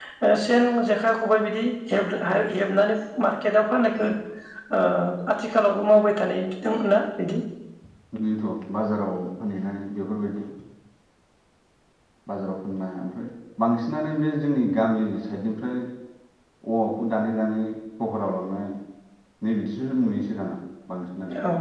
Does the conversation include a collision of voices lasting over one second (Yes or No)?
No